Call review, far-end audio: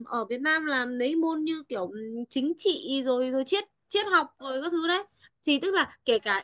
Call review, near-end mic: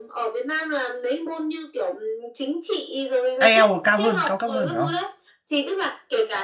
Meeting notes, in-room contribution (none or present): present